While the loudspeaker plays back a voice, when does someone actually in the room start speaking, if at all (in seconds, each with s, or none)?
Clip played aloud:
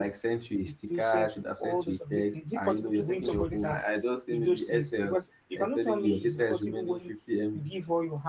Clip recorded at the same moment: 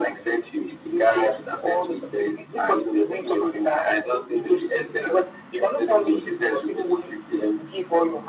none